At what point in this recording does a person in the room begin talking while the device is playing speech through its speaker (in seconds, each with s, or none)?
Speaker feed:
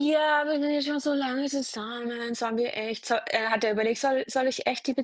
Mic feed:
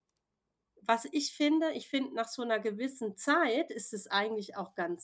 0.8 s